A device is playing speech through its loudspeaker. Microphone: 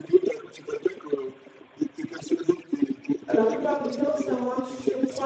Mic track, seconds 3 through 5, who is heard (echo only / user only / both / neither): both